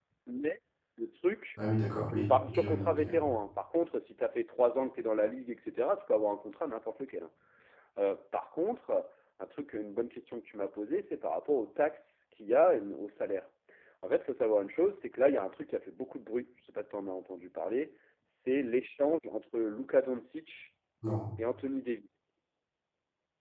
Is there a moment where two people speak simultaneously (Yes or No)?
Yes